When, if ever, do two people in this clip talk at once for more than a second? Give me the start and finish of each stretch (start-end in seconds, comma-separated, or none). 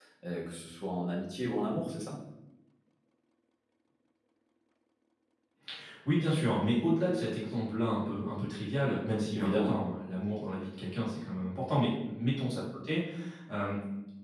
none